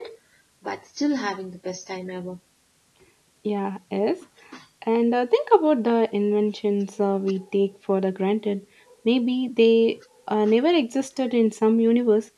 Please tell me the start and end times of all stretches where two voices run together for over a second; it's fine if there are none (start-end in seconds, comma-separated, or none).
none